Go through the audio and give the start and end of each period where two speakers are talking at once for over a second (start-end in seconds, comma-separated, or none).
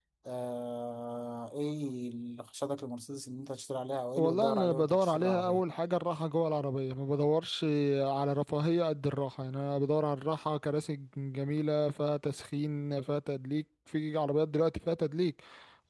4.2-5.6